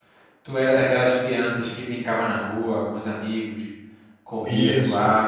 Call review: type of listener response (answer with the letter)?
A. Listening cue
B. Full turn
B